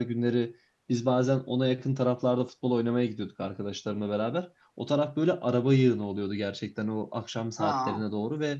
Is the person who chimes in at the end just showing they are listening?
Yes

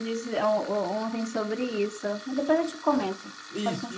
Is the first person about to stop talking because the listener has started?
Yes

